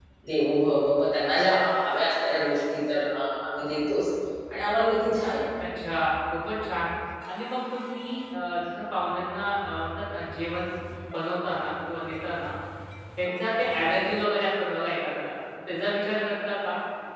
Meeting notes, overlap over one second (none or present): none